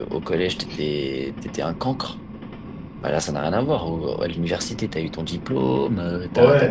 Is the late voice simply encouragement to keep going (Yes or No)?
No